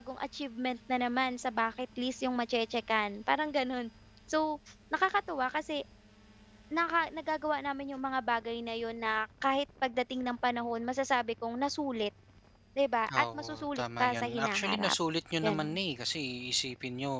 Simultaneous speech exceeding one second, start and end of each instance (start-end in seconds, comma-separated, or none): 13.2-14.9